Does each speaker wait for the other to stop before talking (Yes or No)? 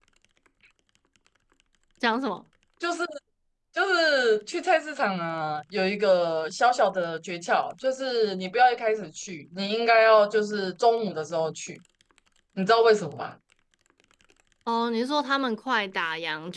Yes